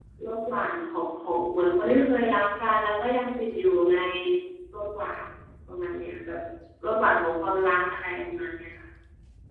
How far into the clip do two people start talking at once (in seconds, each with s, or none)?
none